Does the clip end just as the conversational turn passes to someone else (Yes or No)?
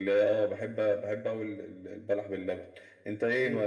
No